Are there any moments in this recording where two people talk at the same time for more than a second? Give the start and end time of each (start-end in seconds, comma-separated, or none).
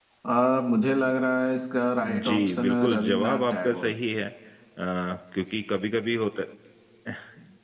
2.3-3.9